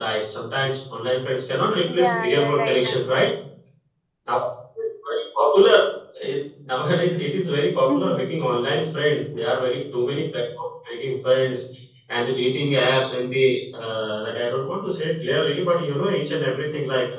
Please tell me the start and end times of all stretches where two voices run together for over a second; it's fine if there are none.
1.9-3.3

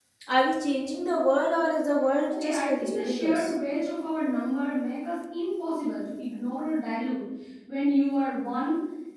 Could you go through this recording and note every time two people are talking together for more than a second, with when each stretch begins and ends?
2.3-3.5

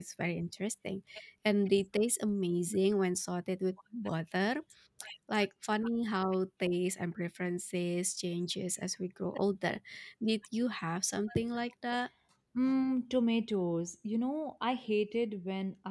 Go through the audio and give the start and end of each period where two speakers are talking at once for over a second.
none

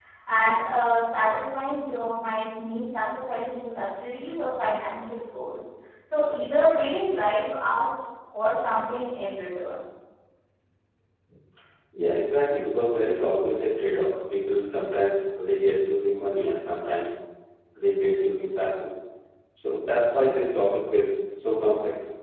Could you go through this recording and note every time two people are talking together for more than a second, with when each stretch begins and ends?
none

